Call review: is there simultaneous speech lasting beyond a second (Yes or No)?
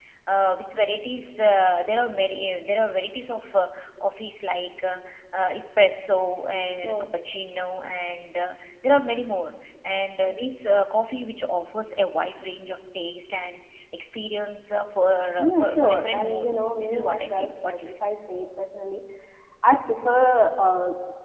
Yes